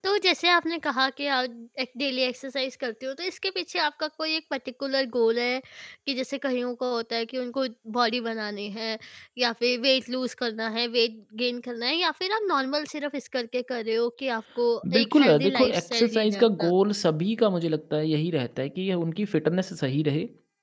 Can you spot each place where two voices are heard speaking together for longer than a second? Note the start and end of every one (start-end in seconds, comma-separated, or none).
14.8-16.7